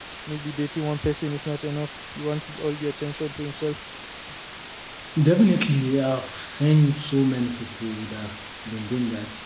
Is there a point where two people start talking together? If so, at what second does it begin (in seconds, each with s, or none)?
none